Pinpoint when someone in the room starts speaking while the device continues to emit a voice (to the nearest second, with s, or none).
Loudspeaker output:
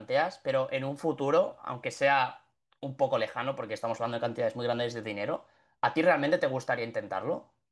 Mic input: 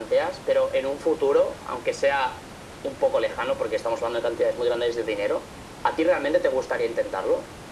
none